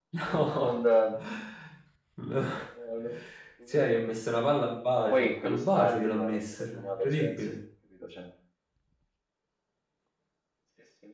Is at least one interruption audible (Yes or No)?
Yes